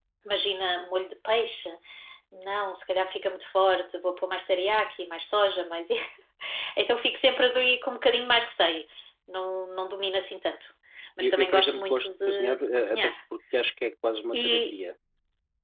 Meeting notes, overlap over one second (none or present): present